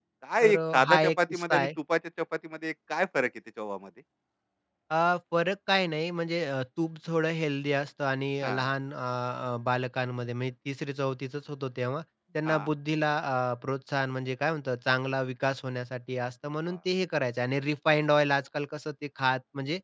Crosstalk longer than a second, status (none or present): present